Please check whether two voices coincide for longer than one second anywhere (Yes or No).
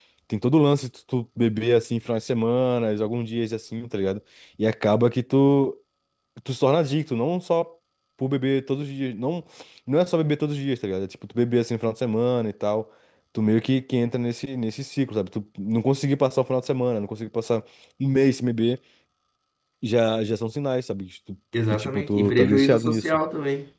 Yes